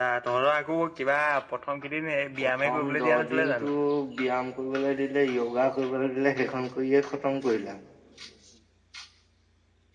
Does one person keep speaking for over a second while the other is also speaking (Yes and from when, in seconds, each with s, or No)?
Yes, from 2.4 s